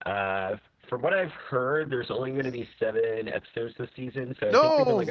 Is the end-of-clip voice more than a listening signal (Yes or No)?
No